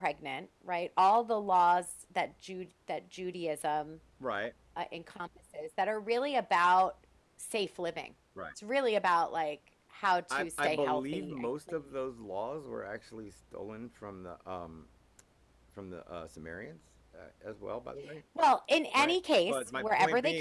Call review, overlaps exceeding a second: present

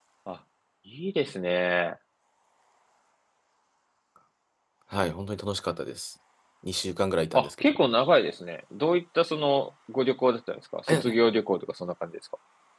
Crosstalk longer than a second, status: none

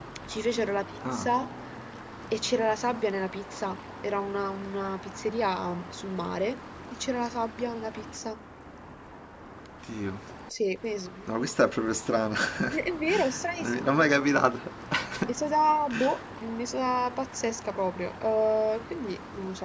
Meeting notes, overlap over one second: none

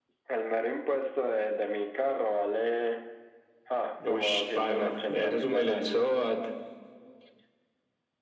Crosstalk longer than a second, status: present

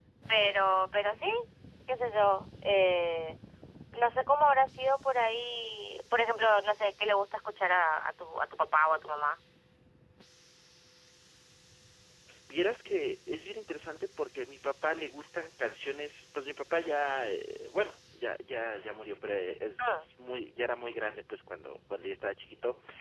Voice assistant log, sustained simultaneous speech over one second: none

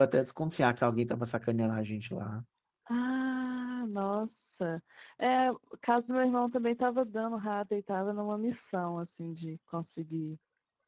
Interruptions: none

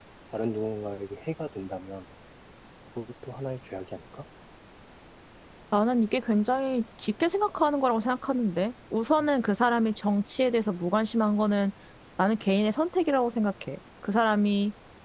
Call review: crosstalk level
none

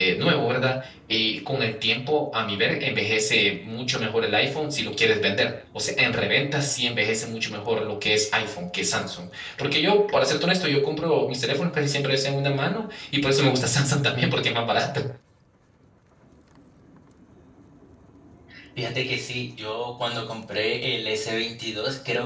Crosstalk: none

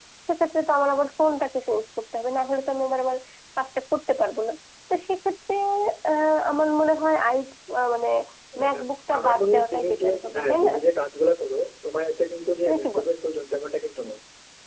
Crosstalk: present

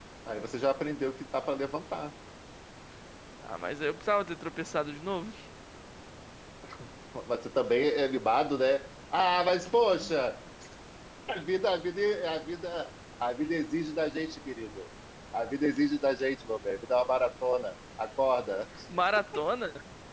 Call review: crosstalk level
none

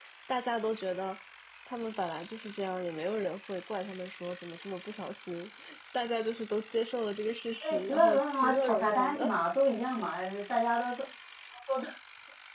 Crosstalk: present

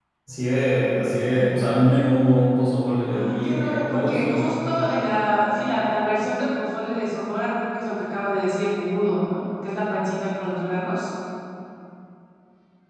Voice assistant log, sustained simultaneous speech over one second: present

